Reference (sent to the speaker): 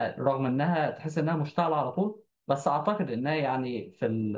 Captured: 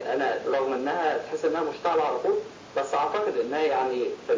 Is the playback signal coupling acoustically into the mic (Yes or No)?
Yes